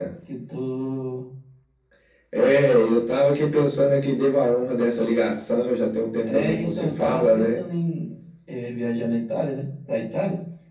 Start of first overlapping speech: 6.2 s

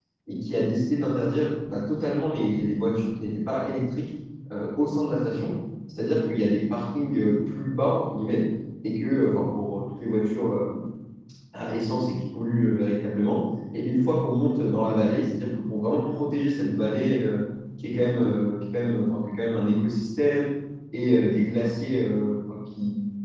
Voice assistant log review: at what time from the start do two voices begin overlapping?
none

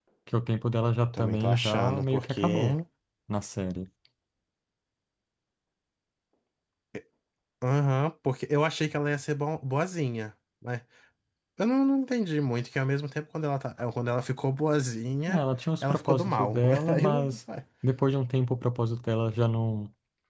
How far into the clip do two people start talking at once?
1.1 s

